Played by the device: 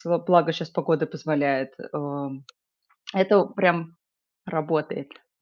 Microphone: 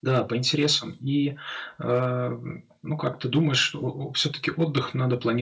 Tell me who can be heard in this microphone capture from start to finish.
user only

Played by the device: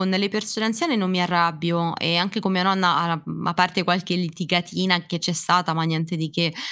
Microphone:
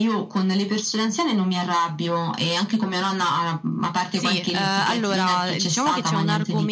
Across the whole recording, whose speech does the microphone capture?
both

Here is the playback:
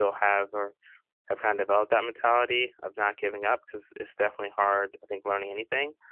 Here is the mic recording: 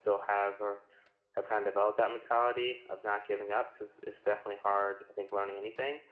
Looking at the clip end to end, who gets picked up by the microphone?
echo only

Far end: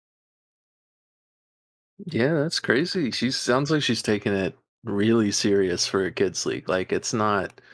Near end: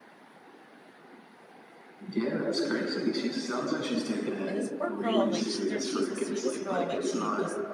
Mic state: both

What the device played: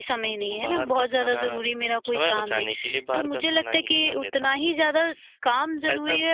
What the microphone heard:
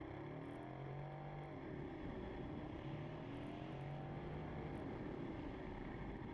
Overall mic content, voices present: neither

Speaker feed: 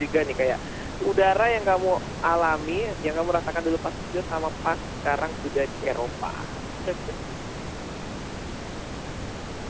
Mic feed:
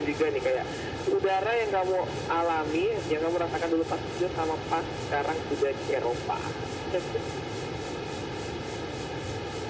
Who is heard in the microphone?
echo only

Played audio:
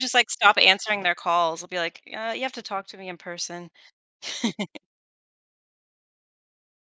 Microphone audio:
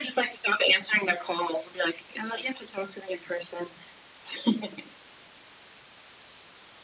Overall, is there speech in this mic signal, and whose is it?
echo only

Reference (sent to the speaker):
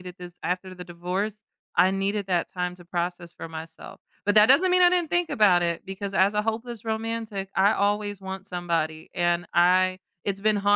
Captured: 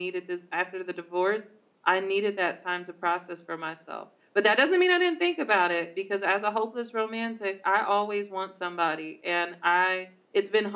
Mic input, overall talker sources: echo only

